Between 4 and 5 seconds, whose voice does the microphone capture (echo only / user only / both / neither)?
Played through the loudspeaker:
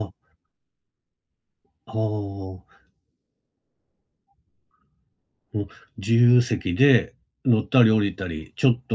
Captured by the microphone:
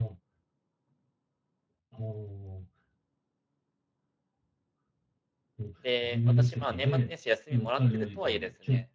neither